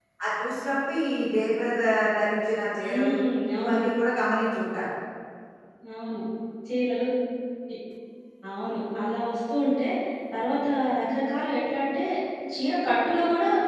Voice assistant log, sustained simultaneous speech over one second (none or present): none